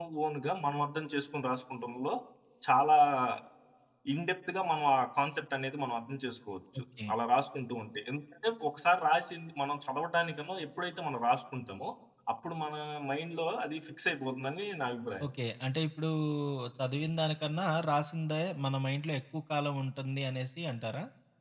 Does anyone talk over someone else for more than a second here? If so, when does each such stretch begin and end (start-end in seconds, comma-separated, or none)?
none